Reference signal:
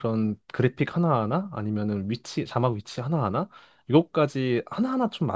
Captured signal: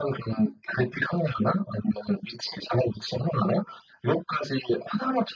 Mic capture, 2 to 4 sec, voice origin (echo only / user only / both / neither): echo only